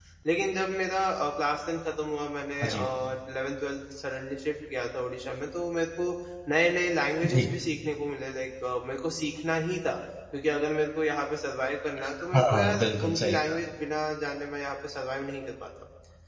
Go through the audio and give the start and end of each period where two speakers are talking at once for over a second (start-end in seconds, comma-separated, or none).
12.3-13.6